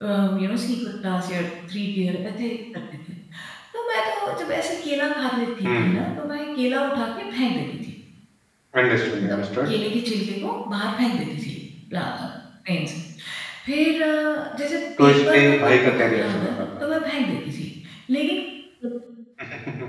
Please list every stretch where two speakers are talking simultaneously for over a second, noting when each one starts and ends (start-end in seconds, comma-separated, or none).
15.0-16.6